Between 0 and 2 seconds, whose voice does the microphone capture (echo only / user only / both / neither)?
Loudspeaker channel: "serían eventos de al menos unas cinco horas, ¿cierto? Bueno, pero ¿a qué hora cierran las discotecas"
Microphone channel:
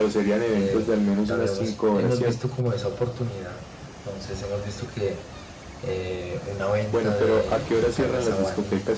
both